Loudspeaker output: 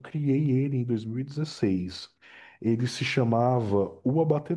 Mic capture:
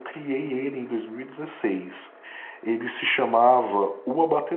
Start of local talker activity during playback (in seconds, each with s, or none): none